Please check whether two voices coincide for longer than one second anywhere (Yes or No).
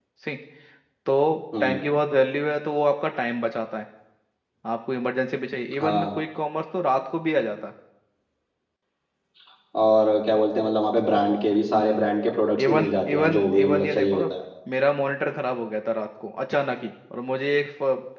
Yes